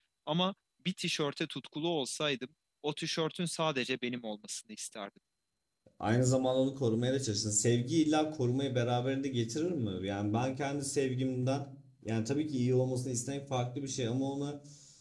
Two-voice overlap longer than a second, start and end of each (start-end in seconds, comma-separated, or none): none